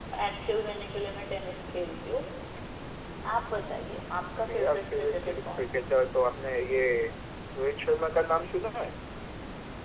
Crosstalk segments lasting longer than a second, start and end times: 4.5-5.8

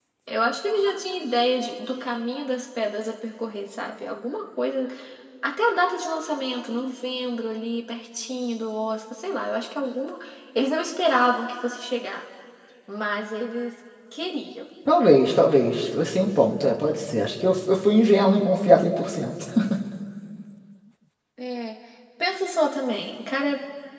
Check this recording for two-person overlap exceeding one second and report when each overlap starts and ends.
none

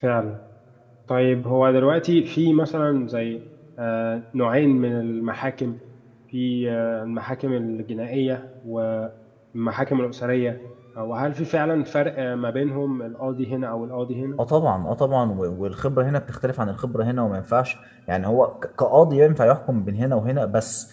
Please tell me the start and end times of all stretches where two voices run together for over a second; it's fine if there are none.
none

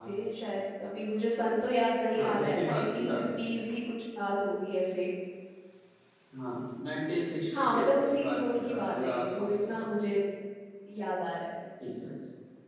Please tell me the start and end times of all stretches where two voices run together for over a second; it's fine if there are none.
2.1-3.4, 8.2-10.1

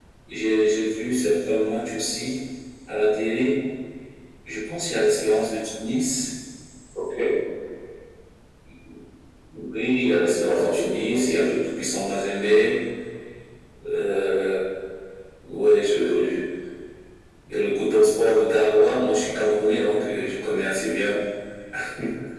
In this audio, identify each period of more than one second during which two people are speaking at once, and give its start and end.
10.0-11.5

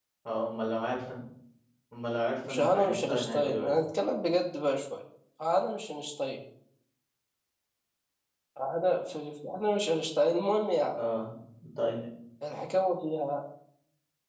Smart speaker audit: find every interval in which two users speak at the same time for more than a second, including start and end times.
2.4-3.8

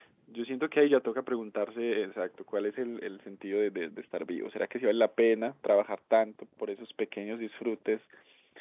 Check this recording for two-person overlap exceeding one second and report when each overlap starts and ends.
none

